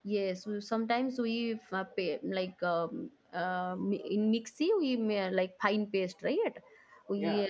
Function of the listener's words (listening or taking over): listening